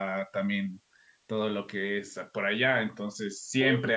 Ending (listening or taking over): listening